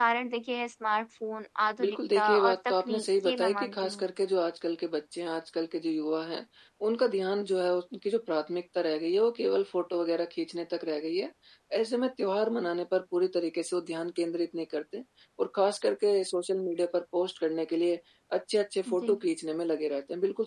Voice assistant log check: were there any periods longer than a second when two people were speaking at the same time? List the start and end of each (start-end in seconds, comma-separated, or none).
1.8-4.0